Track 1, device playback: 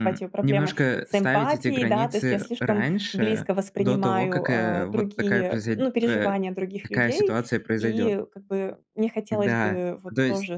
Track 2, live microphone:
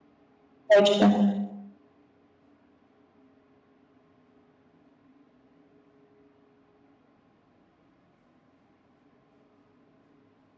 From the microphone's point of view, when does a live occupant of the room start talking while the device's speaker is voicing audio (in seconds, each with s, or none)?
0.7 s